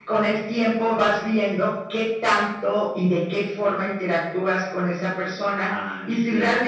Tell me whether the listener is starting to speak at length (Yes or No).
No